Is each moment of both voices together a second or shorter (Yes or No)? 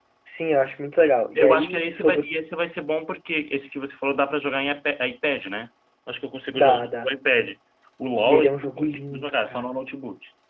No